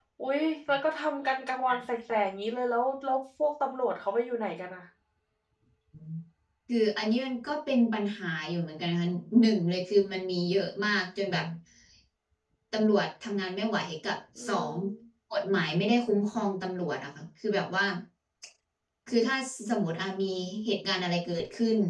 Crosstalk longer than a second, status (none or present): none